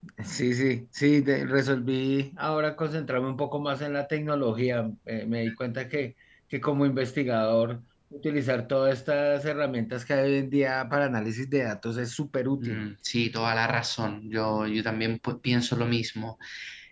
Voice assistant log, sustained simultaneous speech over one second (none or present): none